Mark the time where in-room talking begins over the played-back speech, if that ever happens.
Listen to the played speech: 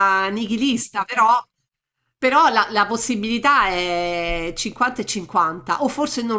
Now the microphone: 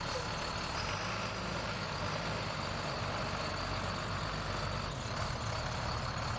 none

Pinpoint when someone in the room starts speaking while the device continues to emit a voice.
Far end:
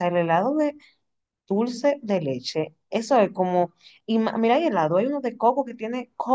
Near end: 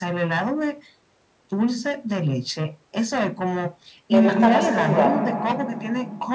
4.1 s

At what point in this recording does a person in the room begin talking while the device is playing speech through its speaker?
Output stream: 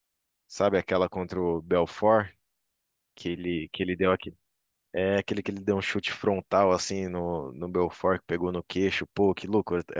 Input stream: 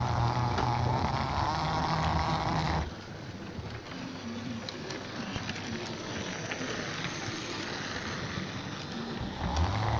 none

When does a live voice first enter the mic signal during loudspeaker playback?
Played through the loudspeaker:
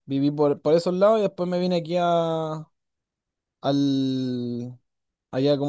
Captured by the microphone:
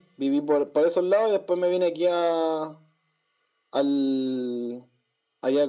none

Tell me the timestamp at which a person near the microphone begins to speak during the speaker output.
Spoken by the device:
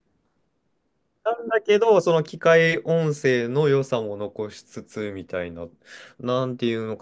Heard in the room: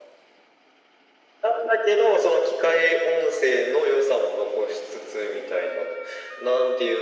none

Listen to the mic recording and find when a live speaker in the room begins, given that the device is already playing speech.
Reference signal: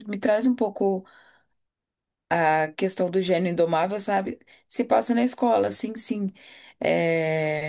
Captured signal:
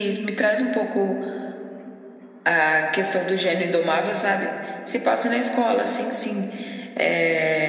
none

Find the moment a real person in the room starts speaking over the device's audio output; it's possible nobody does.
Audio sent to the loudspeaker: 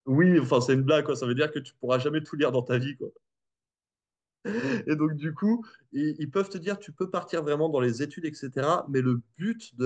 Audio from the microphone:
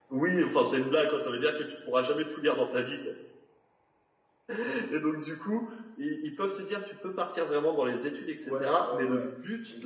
8.4 s

